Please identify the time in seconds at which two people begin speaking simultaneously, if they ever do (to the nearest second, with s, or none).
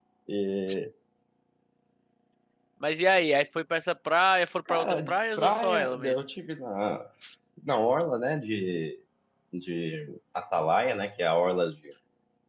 5 s